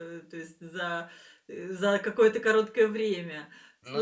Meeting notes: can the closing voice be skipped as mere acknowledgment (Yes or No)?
Yes